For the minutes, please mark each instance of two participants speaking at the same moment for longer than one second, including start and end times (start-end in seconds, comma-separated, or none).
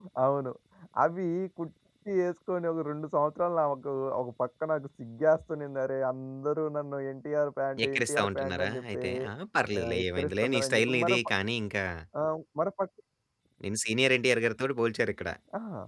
7.8-9.1, 9.8-11.3